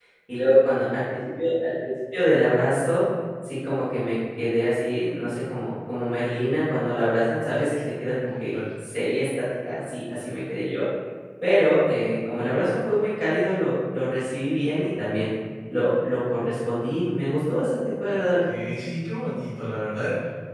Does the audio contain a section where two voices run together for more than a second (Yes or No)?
No